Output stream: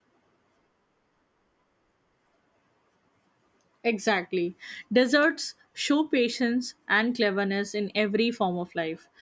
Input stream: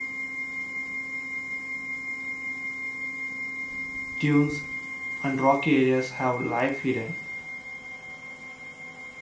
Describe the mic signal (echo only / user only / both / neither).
user only